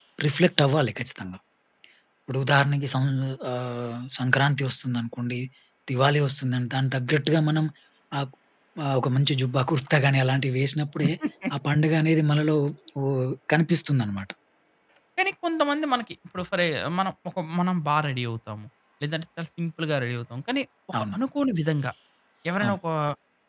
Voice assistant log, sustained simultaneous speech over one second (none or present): none